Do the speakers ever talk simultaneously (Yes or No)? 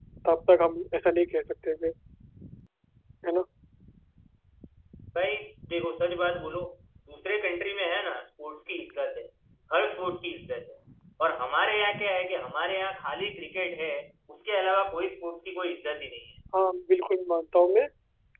No